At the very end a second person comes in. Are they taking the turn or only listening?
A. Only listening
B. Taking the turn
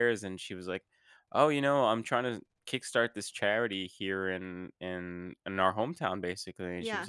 A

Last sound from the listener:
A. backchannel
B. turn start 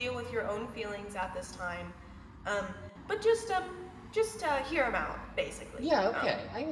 B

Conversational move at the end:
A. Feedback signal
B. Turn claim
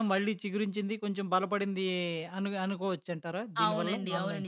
B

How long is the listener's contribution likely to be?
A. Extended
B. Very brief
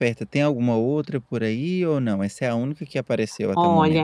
A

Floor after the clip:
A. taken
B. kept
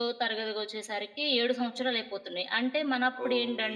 B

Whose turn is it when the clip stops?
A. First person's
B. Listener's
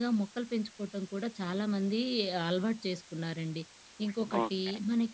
A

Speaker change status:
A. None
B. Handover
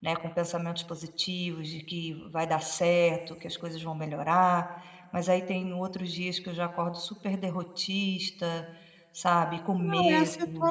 B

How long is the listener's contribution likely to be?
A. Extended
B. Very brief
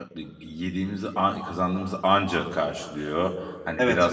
B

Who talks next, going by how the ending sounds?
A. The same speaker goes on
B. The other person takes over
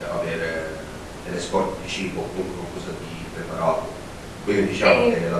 A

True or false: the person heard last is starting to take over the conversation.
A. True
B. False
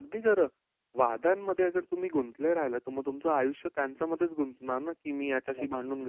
B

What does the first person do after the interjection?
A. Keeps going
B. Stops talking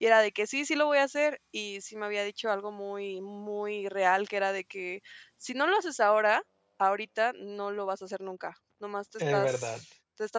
A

